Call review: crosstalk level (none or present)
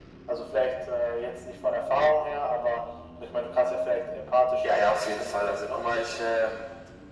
present